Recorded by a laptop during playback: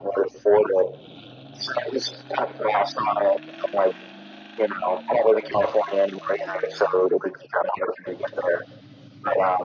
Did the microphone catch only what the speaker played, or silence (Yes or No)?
Yes